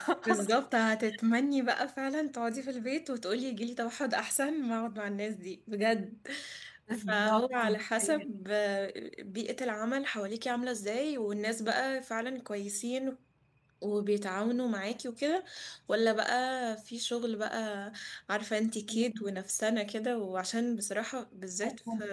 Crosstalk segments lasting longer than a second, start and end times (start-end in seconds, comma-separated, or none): 6.9-8.2